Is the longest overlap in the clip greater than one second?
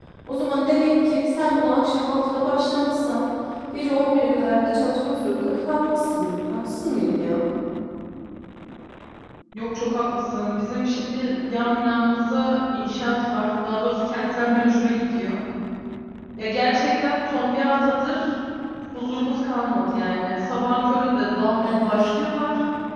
No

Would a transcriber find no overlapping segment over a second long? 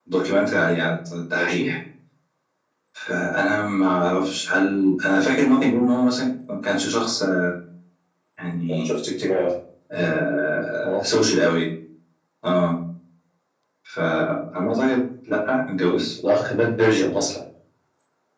Yes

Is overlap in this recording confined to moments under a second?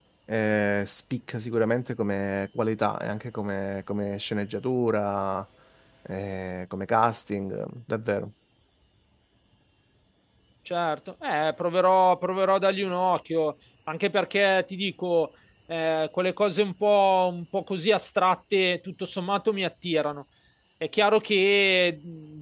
Yes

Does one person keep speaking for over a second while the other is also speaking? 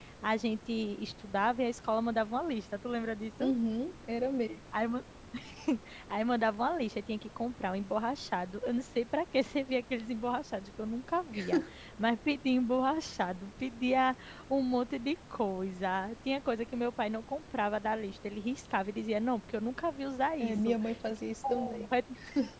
No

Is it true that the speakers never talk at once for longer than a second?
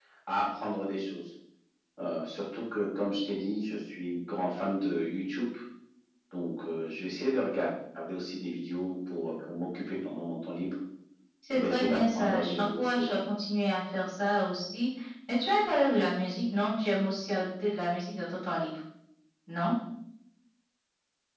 No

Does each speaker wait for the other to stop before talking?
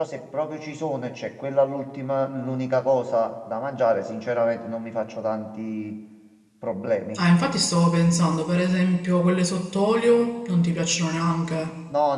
Yes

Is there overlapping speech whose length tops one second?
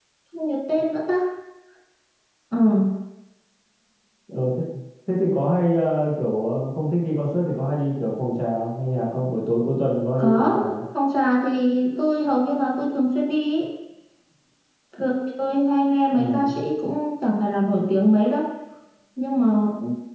No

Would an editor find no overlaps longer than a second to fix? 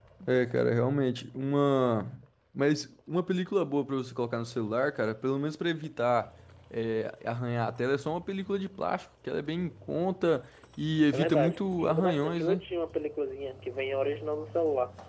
No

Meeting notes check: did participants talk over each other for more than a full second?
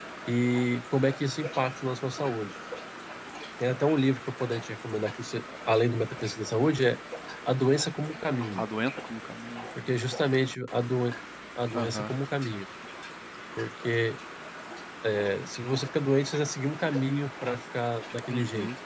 No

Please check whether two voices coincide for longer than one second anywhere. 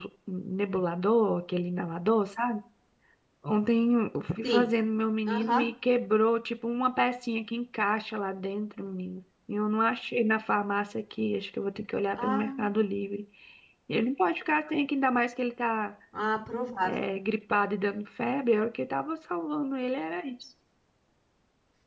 No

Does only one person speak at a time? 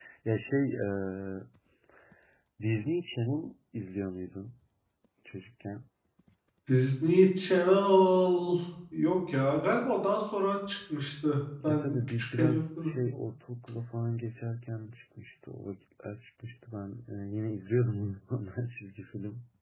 No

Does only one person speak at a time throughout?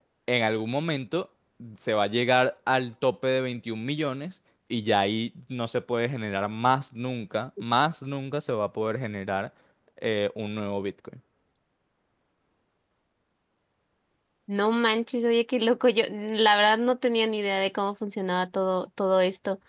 Yes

